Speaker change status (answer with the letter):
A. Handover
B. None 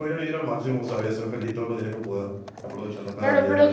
A